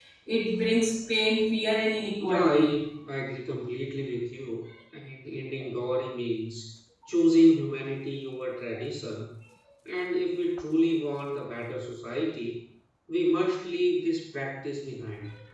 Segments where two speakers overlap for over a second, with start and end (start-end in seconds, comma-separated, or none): none